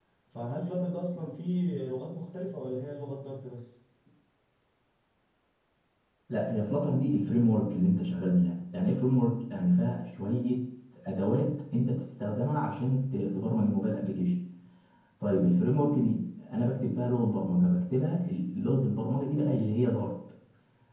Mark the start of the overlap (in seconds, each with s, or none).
none